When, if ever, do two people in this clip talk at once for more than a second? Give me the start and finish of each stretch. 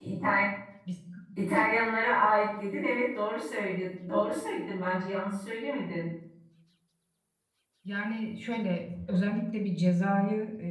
none

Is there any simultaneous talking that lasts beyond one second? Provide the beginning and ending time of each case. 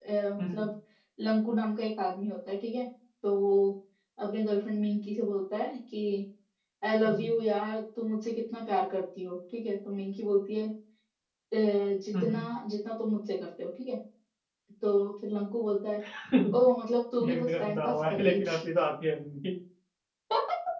17.2-18.6

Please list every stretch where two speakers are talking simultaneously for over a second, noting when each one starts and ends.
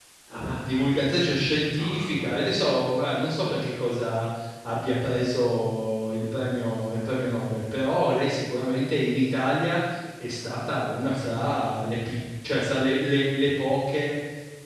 0.5-2.3

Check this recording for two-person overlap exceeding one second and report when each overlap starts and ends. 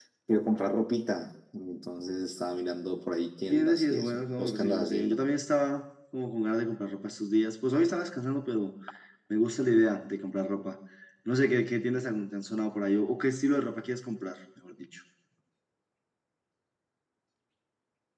3.5-5.2

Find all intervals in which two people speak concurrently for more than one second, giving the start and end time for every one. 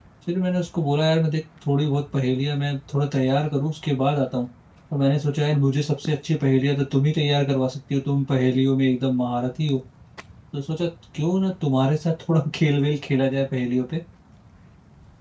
none

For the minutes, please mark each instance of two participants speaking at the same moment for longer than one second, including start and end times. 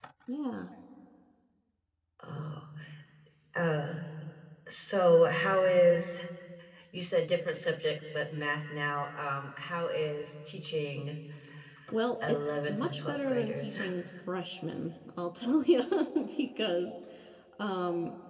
12.3-13.8

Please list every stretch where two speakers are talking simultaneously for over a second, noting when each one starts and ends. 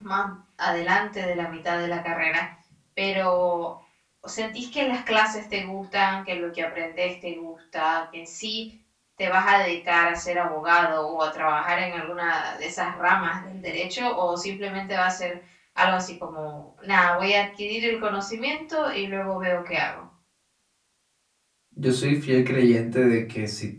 none

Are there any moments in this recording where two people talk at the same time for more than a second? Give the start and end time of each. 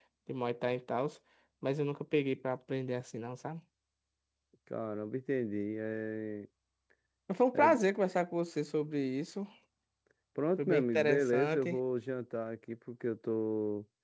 10.6-11.8

